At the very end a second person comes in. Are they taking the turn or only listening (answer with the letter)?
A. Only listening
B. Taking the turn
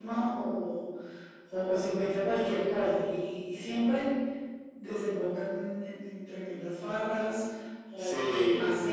A